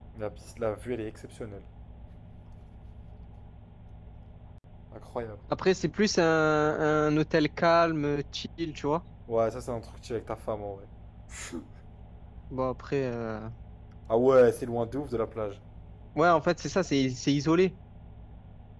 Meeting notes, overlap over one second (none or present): none